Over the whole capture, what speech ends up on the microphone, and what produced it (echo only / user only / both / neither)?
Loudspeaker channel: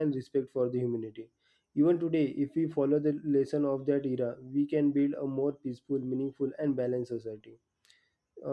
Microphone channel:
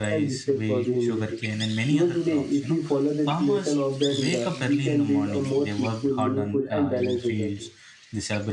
both